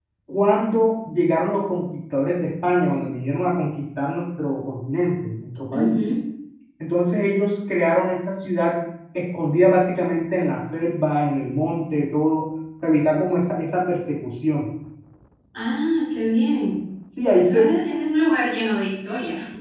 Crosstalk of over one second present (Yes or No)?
No